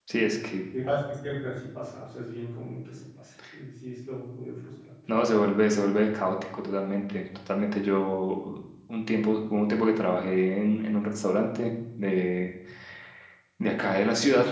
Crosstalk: none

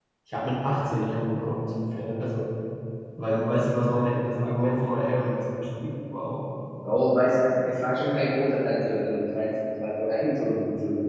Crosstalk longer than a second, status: none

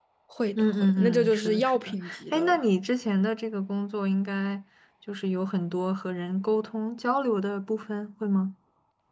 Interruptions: present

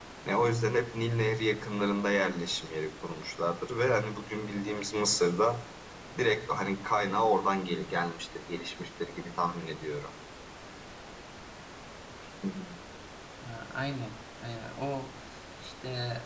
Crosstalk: none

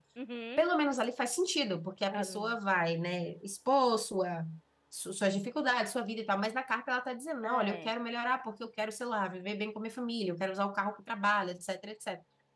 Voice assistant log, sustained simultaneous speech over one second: none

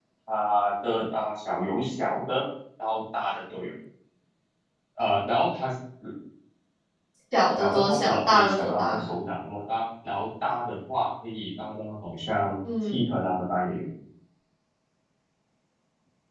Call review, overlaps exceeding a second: present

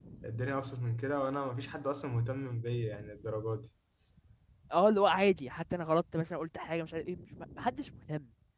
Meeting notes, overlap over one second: none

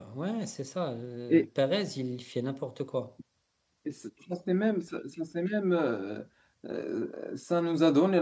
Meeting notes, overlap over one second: none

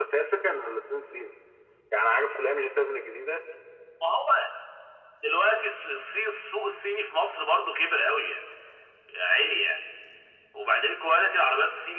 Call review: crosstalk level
none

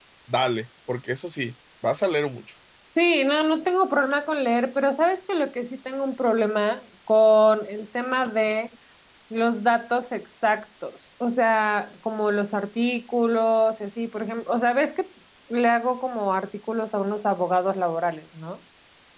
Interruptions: none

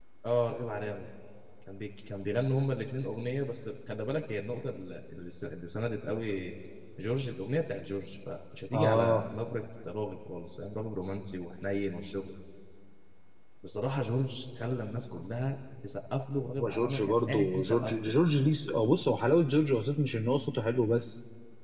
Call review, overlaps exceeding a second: present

